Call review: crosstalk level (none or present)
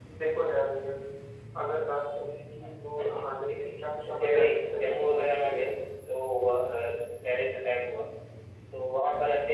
present